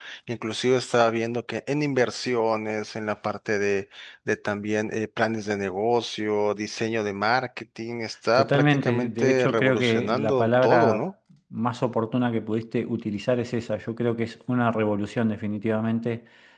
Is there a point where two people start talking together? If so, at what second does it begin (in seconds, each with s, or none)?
8.3 s